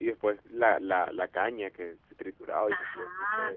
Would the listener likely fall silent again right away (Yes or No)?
No